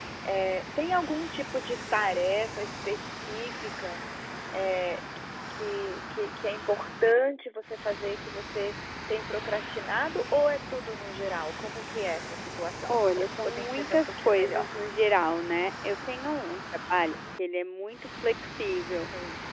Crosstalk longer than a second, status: present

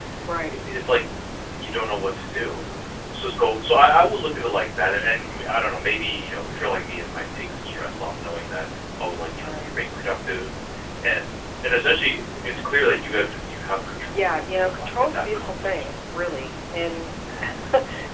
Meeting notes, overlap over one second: present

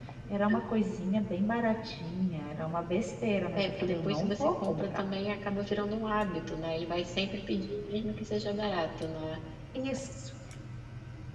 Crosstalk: present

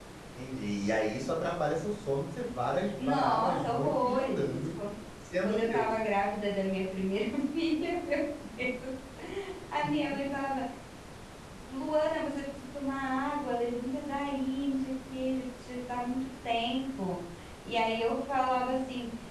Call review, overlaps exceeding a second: present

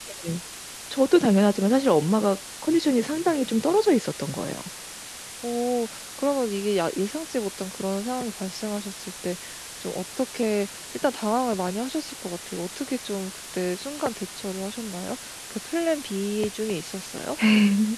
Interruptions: none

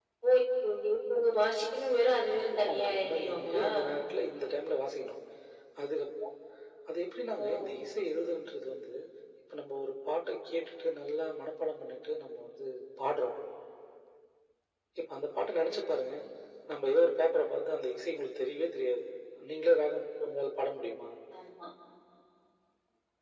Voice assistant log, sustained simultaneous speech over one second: present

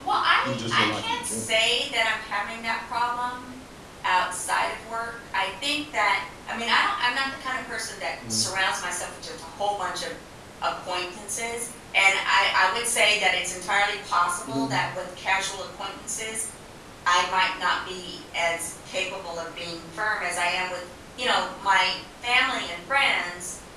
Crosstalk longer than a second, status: present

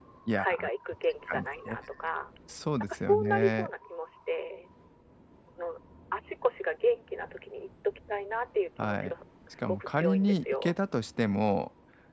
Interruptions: present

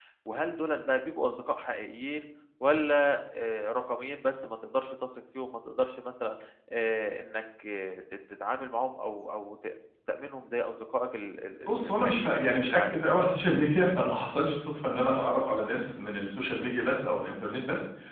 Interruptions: present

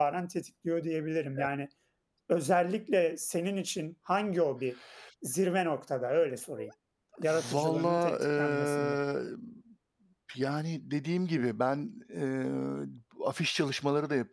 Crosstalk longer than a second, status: present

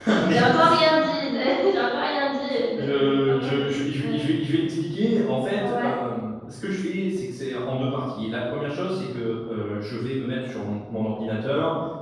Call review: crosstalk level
present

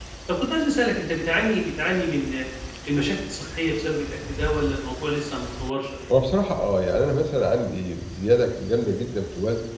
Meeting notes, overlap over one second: none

